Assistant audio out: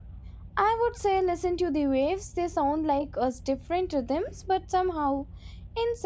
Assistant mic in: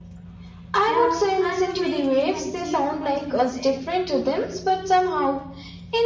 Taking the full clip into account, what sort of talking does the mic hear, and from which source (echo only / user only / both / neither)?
both